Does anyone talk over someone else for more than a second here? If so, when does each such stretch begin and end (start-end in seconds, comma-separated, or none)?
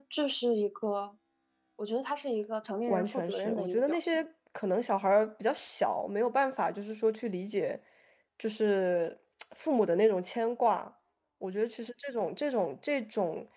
2.9-4.2